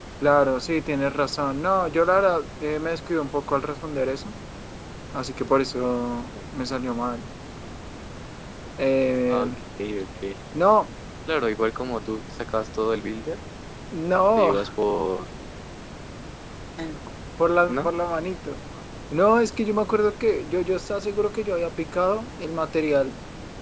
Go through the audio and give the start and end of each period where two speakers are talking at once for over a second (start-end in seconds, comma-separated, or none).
none